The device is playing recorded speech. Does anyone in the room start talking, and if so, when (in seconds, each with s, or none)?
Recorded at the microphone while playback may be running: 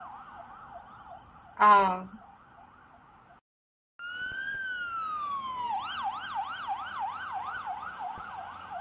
1.6 s